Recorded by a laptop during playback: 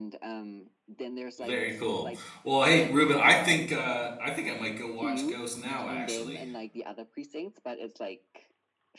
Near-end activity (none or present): present